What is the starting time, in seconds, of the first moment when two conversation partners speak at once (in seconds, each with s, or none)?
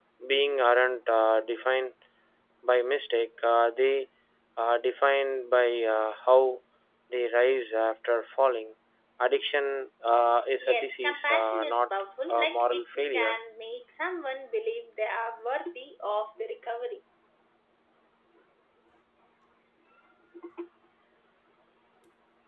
10.6 s